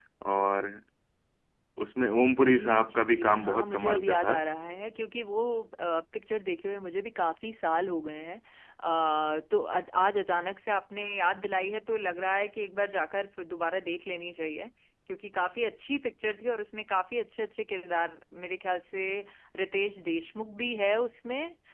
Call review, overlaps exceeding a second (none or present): present